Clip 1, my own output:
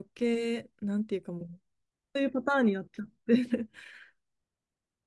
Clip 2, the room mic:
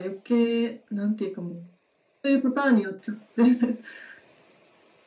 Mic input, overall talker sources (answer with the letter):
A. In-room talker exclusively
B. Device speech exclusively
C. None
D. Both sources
B